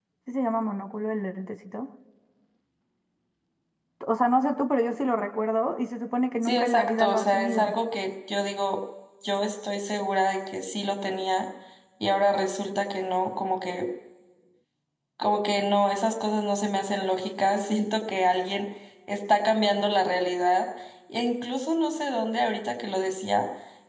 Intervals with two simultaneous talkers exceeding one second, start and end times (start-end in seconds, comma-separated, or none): 6.4-7.7